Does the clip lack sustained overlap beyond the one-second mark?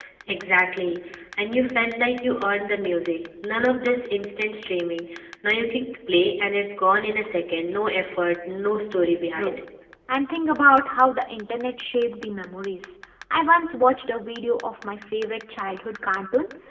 Yes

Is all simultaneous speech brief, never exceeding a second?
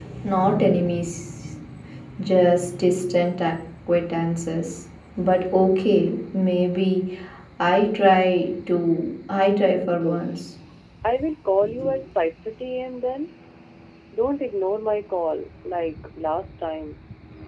Yes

